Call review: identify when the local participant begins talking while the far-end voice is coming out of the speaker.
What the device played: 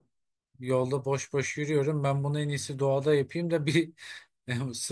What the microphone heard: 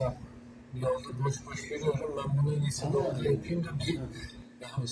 2.8 s

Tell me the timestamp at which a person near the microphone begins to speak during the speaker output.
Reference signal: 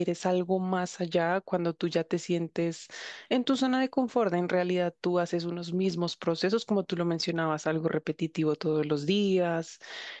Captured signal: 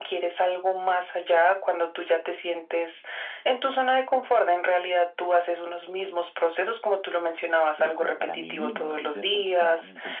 7.7 s

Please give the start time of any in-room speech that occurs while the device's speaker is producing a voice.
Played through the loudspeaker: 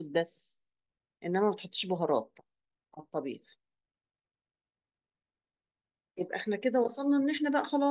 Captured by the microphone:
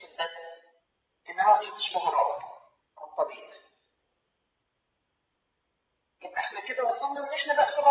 none

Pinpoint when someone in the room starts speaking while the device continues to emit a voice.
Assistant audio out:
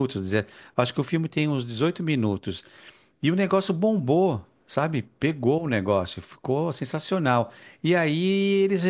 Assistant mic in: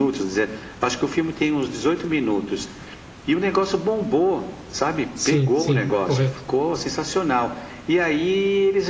5.2 s

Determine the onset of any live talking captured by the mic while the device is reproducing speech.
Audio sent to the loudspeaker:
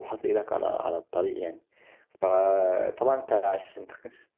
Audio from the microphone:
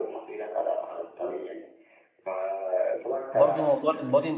3.3 s

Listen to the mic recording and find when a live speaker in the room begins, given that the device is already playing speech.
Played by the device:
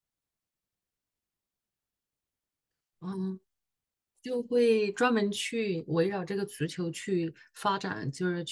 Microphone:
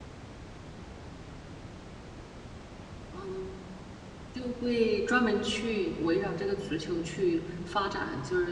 none

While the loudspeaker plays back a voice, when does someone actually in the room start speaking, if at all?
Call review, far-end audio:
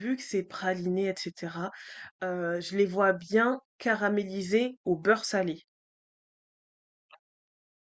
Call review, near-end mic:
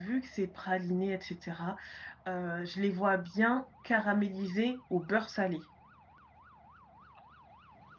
none

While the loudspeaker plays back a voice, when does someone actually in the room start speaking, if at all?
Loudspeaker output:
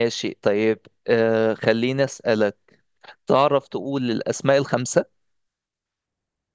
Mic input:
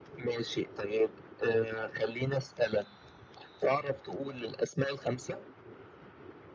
none

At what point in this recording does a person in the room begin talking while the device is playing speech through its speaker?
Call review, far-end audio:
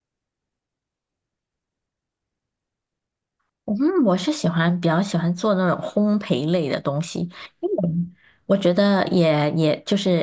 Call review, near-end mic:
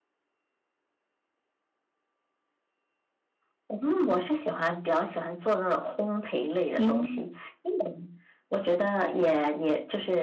6.8 s

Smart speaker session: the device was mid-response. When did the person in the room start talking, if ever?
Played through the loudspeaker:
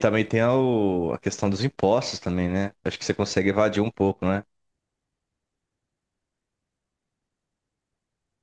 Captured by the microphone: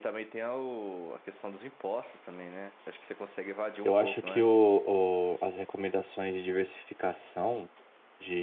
3.8 s

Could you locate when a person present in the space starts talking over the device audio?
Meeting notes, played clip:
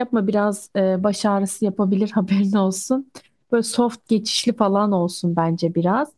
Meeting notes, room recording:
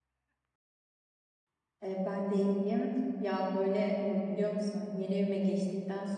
1.8 s

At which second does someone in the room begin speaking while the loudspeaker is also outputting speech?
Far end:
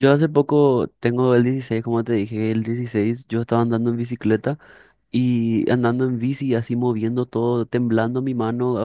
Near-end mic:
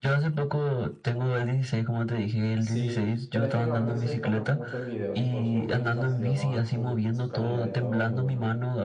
2.6 s

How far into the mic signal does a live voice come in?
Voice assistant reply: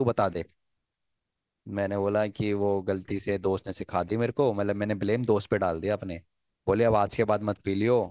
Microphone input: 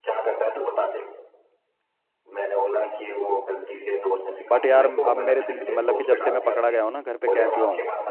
4.5 s

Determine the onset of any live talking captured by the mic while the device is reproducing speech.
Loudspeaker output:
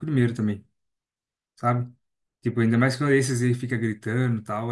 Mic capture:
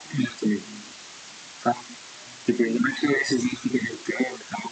none

